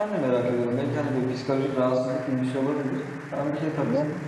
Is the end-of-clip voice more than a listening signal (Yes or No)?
No